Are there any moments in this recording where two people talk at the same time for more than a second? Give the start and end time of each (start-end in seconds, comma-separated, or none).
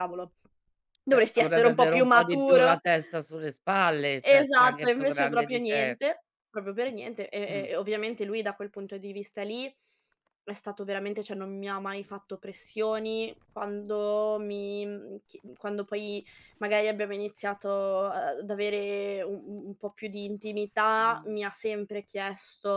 1.1-2.8, 4.3-5.9